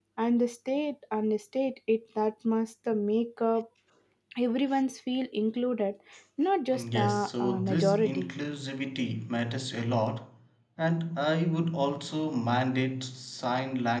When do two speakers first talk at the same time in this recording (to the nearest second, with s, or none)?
7 s